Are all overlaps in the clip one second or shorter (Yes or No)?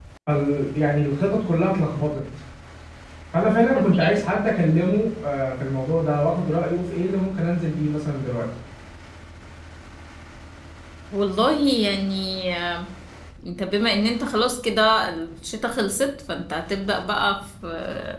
Yes